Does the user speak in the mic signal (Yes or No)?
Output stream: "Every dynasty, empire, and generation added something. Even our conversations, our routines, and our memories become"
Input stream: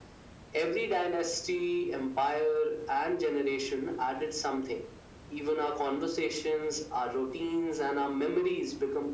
No